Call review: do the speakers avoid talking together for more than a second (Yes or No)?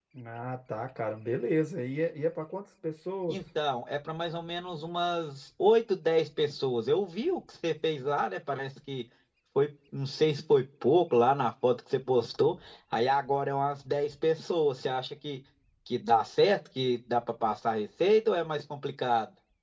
Yes